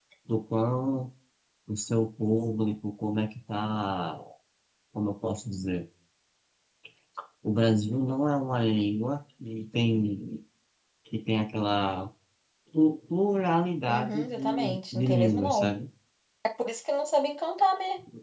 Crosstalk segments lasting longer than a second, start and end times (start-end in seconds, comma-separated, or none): 13.9-15.8